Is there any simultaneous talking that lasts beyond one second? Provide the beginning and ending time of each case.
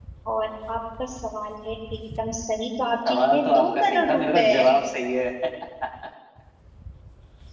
3.1-4.5

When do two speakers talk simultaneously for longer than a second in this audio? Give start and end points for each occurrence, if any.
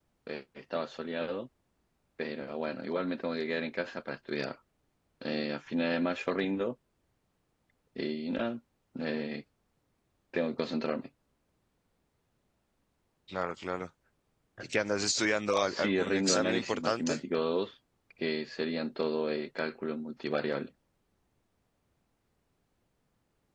15.6-17.2

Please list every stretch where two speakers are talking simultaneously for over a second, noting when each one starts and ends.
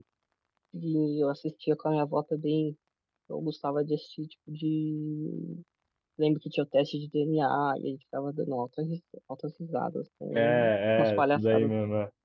10.3-11.7

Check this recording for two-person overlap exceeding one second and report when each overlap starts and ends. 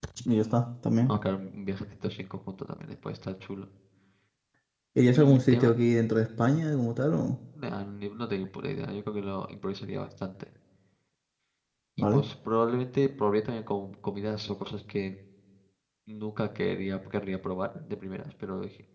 none

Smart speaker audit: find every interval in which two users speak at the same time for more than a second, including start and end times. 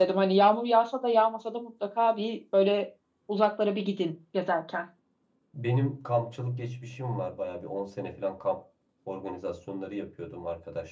none

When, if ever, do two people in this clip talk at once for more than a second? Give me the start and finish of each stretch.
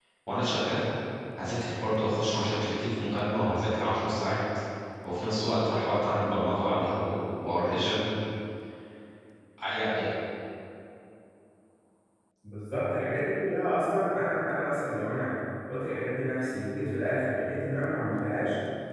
none

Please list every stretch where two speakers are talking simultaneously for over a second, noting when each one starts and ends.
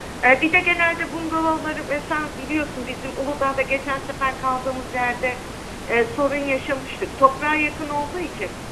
none

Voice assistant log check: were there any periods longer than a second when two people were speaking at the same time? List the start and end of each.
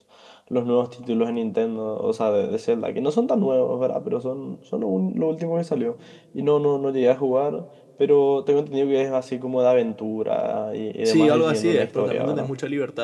11.1-12.5

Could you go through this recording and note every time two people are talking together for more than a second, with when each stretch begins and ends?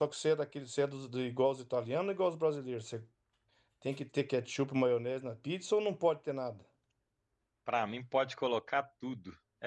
none

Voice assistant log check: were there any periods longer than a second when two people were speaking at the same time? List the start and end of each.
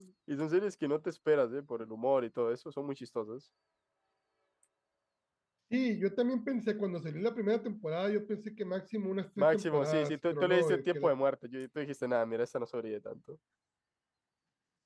9.4-11.1

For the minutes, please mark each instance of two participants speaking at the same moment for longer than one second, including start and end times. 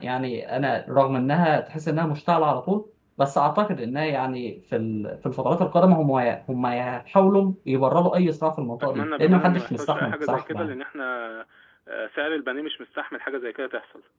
8.8-10.8

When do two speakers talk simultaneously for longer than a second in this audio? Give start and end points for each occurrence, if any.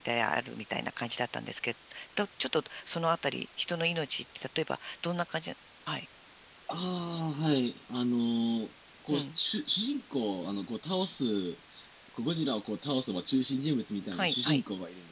none

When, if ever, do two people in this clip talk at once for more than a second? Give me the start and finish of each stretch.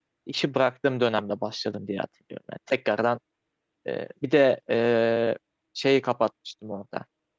none

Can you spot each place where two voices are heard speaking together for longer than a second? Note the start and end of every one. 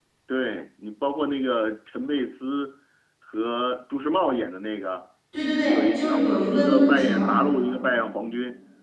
5.7-7.3

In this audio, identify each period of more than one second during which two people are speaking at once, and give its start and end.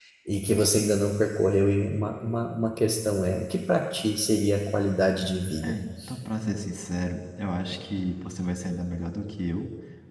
none

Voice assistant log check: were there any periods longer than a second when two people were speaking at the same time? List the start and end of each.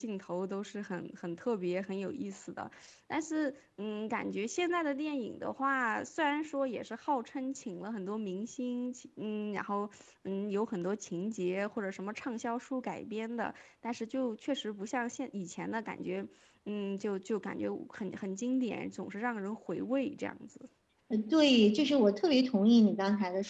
none

